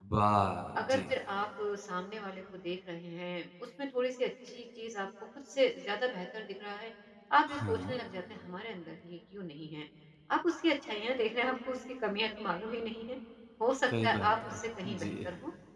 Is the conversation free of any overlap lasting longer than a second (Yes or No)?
No